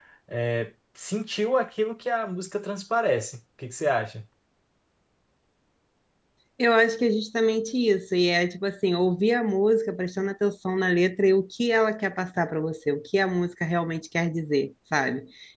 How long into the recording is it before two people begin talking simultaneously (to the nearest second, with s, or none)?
none